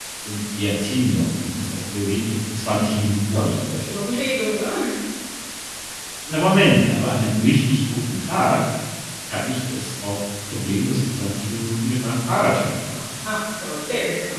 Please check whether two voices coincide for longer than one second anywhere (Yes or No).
No